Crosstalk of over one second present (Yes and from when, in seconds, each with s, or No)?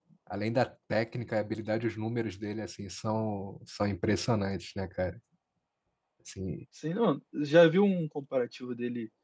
No